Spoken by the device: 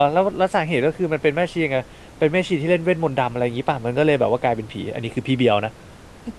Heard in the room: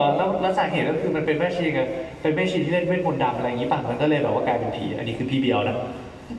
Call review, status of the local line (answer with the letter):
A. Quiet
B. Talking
A